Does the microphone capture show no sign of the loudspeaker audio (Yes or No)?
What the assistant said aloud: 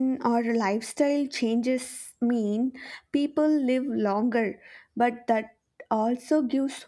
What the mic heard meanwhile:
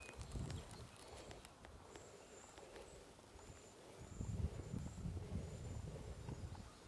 Yes